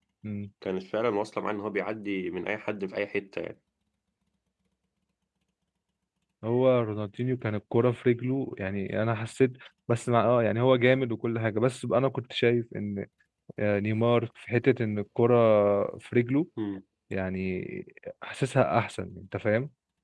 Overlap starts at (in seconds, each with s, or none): none